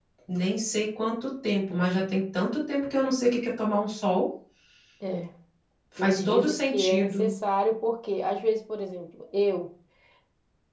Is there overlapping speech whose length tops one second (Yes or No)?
Yes